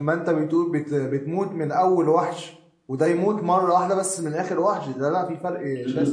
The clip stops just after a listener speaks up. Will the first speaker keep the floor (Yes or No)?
No